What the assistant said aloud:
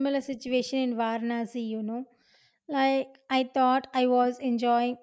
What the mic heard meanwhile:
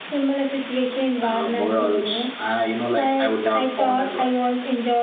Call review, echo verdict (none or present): present